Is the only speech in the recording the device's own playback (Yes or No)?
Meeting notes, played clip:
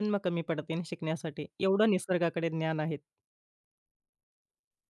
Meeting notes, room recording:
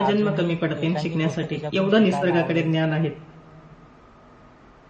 No